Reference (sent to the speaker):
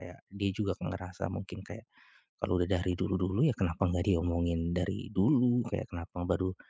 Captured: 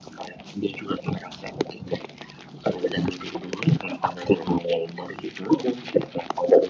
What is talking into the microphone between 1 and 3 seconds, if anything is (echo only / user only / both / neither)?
echo only